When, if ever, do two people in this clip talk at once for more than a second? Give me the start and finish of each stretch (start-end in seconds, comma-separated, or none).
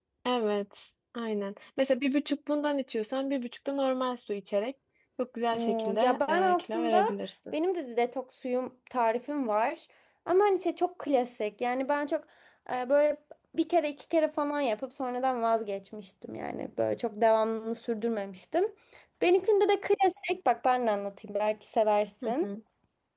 5.5-7.0